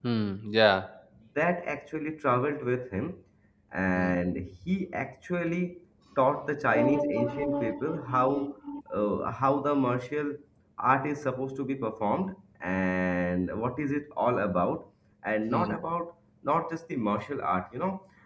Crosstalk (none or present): present